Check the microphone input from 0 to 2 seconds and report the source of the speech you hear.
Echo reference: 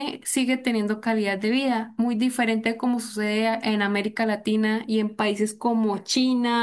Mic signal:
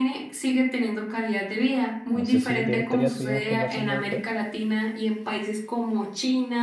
echo only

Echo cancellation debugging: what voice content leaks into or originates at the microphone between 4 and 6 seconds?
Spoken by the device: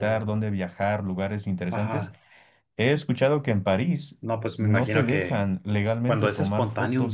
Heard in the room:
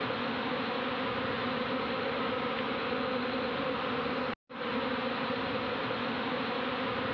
neither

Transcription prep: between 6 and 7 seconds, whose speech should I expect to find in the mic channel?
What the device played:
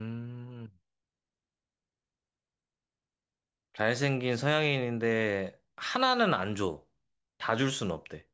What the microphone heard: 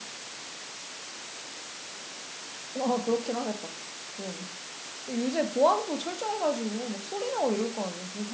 user only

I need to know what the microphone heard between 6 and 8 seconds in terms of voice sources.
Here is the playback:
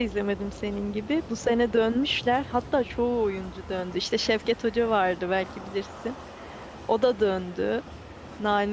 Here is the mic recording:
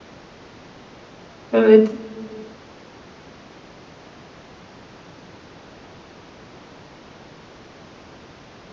neither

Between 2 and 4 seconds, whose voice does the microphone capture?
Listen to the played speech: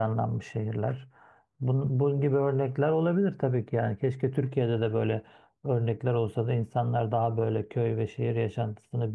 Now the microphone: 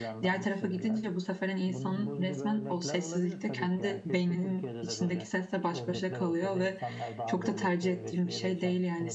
both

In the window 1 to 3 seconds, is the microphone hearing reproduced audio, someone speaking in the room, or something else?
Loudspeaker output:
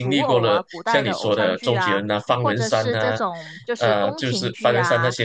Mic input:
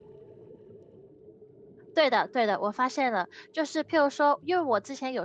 user only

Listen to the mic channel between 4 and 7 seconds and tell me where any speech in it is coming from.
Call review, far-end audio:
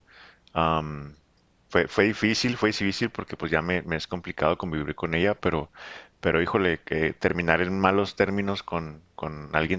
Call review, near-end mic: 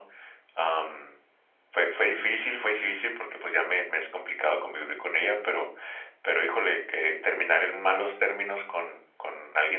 echo only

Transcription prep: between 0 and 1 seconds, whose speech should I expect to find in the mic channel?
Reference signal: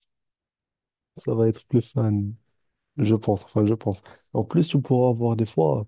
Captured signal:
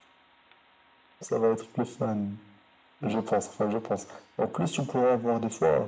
neither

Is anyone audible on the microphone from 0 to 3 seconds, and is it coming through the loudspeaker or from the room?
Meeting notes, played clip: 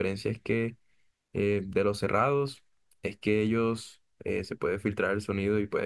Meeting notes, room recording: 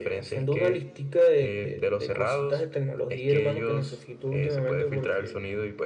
both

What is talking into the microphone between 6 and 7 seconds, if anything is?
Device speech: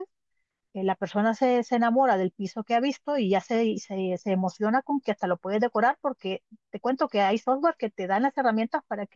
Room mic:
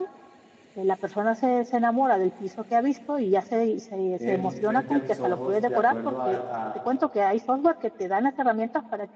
both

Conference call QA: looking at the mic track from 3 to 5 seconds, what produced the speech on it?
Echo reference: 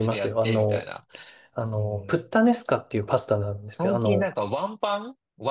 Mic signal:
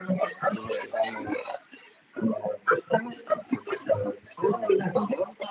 echo only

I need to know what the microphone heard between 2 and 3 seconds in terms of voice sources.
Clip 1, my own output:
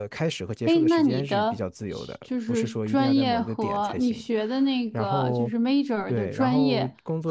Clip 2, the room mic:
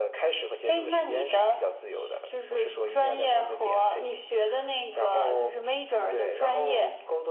echo only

